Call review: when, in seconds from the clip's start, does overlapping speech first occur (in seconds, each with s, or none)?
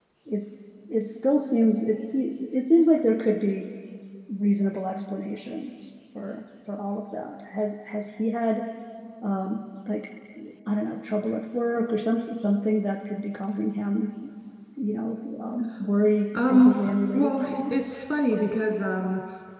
16.3 s